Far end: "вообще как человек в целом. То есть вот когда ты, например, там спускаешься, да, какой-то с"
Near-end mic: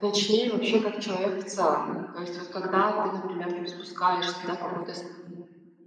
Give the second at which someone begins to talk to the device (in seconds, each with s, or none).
none